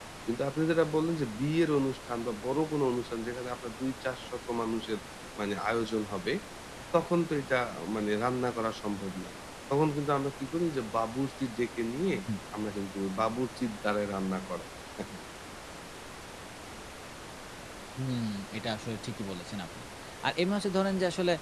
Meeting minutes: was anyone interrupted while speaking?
No

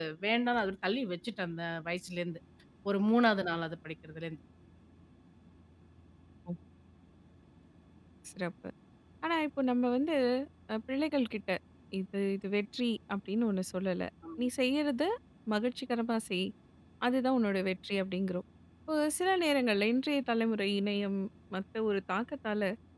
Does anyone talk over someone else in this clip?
No

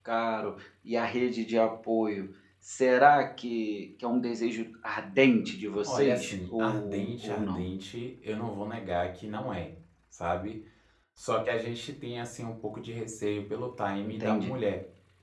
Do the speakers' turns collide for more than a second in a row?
Yes, from 5.8 s

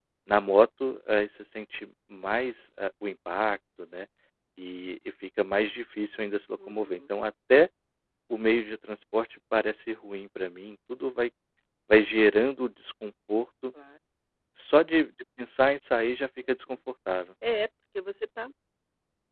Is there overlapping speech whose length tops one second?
No

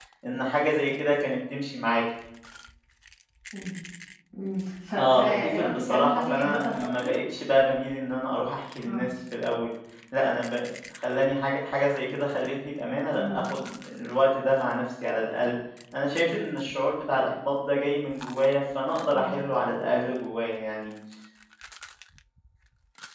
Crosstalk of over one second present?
Yes, from 5.0 s

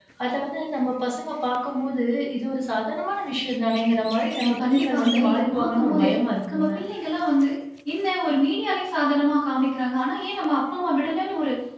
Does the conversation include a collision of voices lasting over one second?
Yes, from 4.6 s

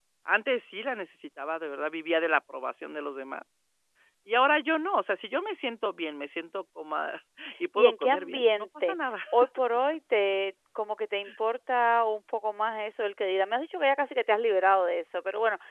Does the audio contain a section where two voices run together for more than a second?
Yes, from 7.8 s

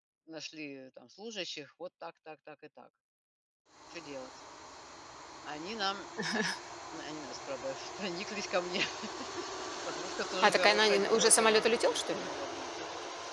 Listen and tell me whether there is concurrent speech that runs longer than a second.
Yes, from 10.4 s

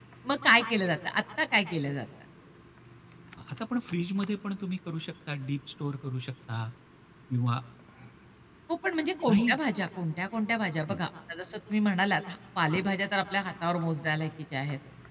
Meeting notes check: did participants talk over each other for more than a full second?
No

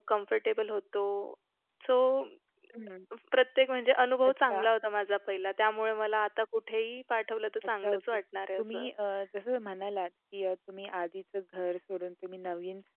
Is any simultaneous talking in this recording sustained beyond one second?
No

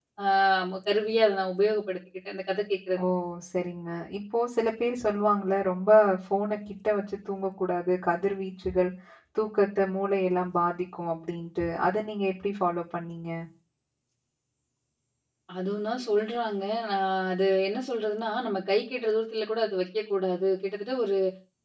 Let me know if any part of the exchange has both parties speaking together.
No

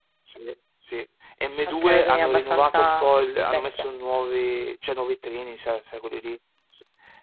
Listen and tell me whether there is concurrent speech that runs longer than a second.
Yes, from 1.6 s

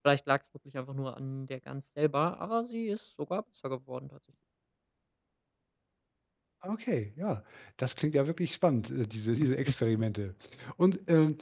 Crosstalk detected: No

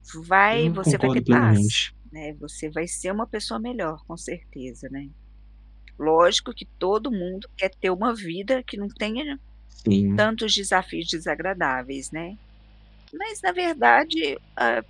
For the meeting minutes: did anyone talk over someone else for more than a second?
Yes, from 0.5 s

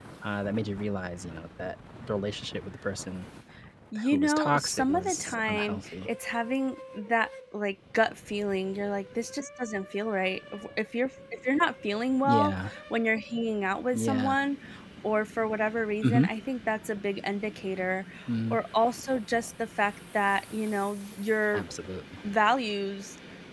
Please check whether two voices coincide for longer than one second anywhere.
Yes, from 4.1 s

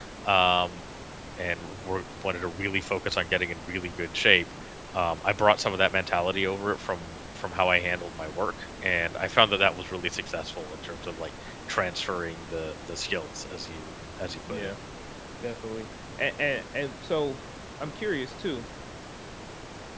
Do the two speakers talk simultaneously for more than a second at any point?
No

